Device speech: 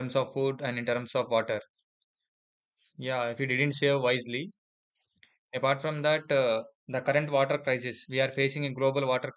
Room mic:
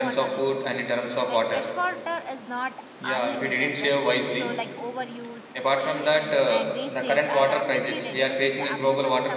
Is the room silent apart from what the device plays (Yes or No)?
No